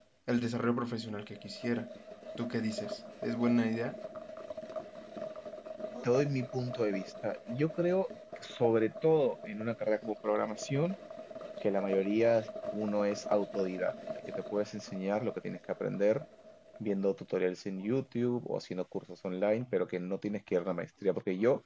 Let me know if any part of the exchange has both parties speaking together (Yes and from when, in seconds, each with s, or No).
No